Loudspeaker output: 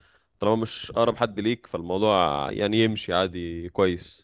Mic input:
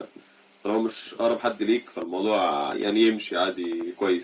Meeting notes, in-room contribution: none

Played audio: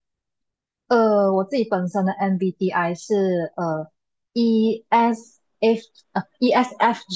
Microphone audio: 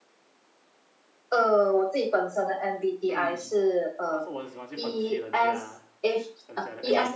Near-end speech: present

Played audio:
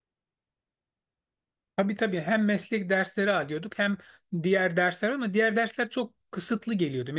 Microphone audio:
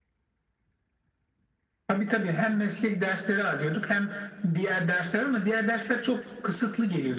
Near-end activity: none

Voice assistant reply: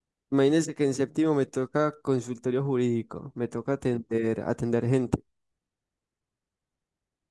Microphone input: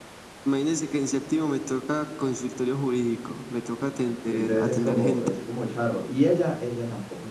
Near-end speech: present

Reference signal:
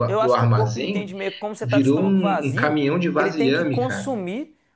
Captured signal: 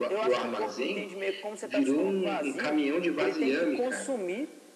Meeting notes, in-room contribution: none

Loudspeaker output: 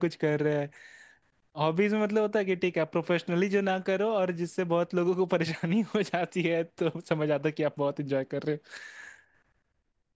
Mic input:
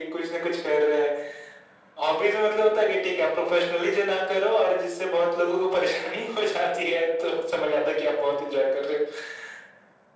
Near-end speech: none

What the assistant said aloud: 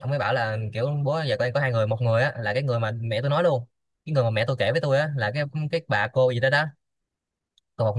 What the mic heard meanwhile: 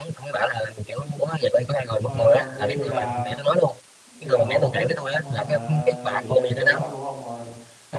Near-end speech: present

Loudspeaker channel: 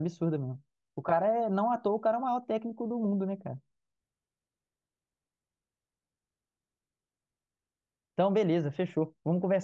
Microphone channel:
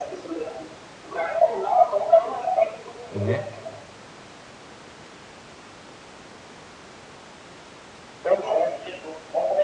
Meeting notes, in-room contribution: present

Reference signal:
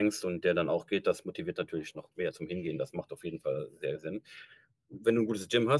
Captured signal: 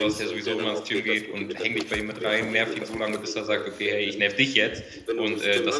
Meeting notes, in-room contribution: present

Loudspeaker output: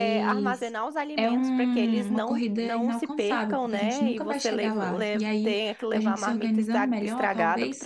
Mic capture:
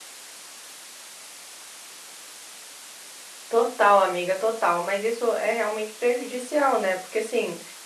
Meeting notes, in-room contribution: present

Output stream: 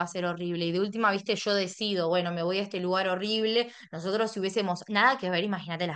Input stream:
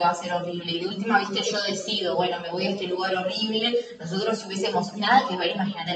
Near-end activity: none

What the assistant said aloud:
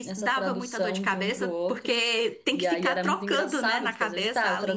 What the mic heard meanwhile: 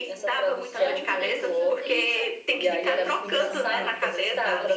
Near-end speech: present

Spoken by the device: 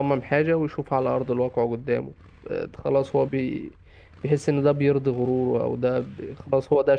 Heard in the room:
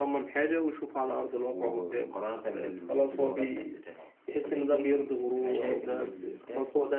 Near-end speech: present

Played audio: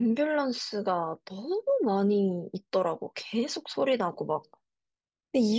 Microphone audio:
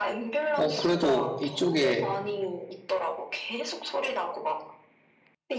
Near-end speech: present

